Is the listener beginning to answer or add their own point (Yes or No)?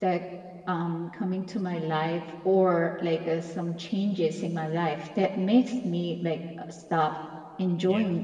No